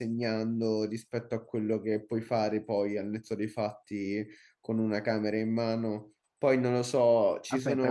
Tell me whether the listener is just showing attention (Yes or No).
No